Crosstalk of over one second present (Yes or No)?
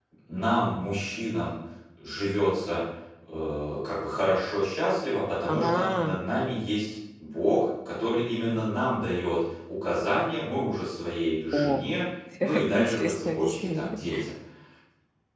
Yes